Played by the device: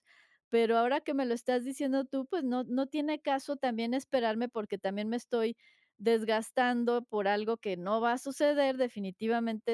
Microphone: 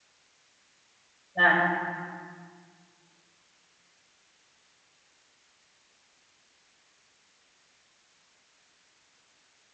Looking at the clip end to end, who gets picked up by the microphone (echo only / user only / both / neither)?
user only